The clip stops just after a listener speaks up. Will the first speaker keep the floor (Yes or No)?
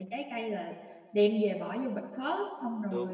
No